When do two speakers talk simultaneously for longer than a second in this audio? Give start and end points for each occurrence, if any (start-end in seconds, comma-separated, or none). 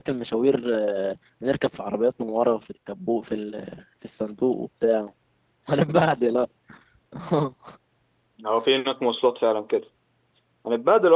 none